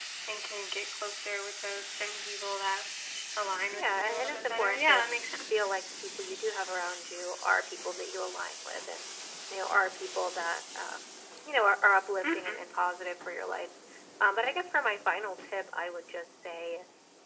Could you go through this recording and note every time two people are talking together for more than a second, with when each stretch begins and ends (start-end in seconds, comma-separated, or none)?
3.7-5.0